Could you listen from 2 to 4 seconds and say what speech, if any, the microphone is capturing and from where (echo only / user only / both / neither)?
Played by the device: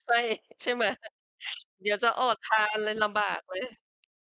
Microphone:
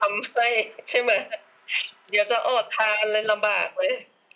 echo only